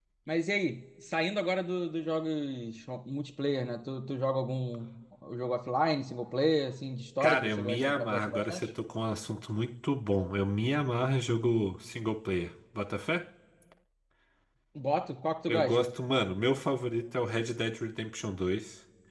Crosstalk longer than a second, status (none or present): present